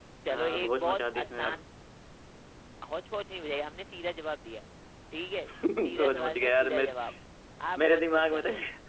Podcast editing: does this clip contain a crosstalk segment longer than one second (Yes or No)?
Yes